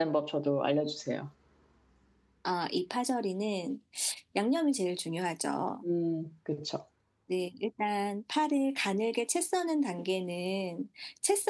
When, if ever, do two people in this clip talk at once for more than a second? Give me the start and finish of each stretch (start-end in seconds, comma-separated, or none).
none